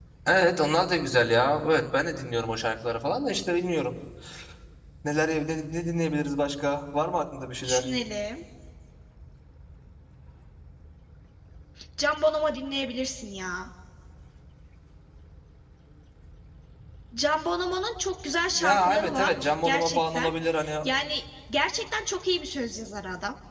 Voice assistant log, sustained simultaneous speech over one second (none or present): present